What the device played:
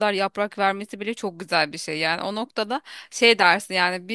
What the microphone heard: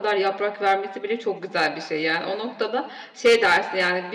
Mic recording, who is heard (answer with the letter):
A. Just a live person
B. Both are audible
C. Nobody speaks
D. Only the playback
D